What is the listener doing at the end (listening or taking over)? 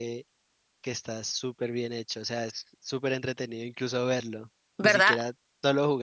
listening